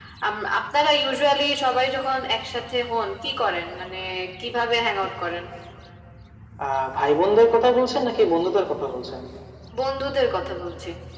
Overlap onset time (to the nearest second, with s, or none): none